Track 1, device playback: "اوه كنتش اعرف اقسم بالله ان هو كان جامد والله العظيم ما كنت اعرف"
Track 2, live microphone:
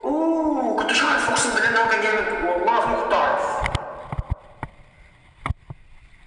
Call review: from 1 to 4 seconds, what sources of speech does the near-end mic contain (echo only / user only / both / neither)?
echo only